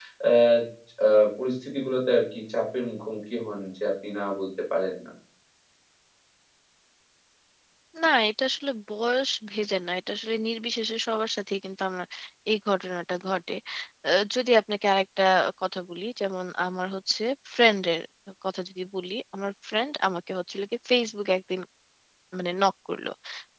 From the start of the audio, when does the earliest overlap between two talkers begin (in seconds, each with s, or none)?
none